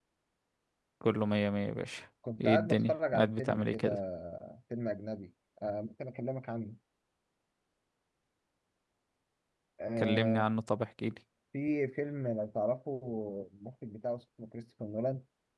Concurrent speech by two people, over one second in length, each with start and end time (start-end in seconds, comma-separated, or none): 2.4-3.9